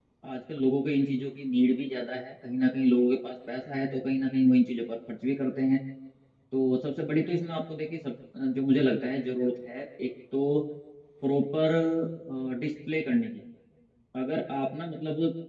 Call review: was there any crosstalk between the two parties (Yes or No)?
No